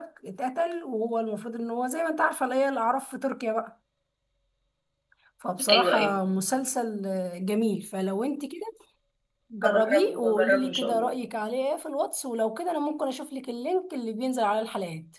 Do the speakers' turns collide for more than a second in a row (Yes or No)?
Yes